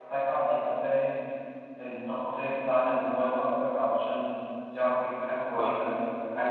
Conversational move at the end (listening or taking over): listening